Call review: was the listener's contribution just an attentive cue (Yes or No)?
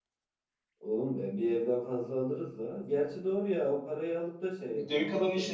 No